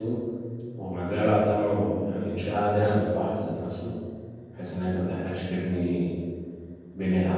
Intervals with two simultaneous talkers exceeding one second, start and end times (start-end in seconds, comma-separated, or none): none